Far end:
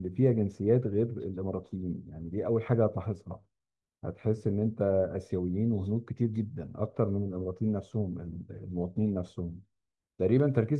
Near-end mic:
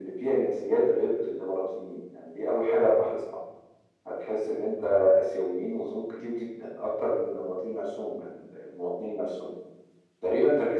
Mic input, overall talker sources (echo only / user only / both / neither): echo only